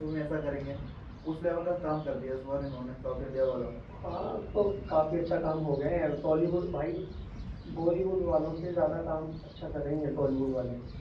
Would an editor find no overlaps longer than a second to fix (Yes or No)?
Yes